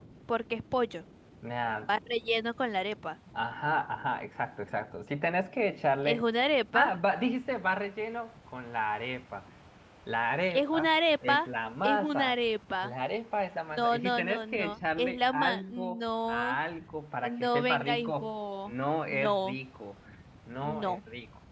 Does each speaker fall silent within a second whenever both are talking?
No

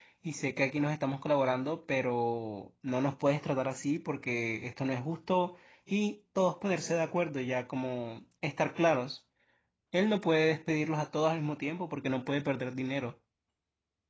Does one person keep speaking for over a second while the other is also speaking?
No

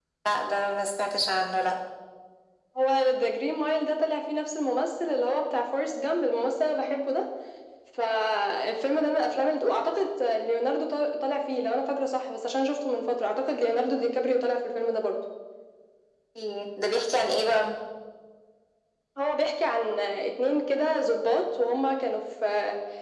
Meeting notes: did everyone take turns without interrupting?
Yes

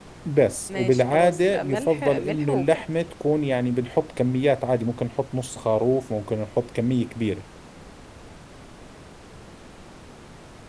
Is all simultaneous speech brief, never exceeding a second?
No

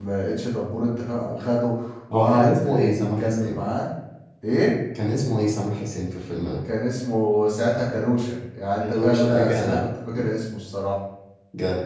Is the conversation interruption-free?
No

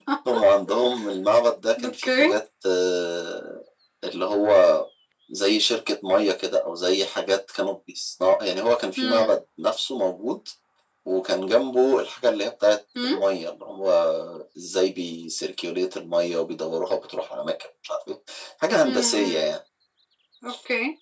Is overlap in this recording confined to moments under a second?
Yes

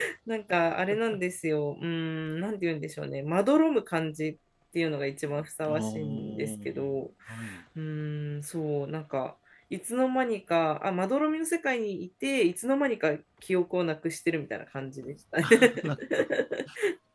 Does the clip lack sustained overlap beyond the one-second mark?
No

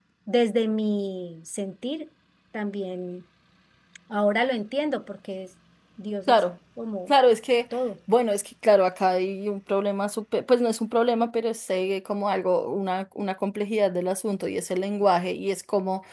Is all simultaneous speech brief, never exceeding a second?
Yes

